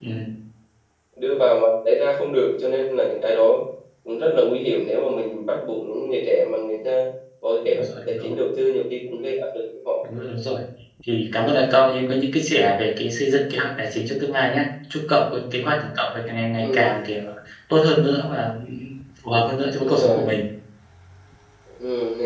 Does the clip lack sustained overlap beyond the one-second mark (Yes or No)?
Yes